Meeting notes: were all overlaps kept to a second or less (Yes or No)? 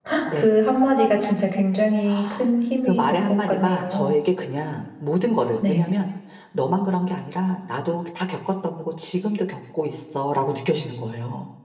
No